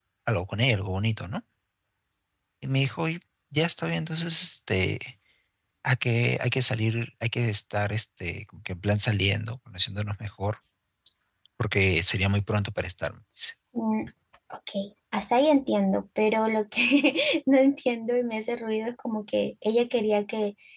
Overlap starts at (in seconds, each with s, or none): none